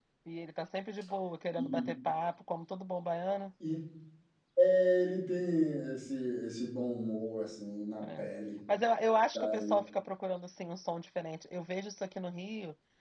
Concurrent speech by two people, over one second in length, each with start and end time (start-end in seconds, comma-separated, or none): none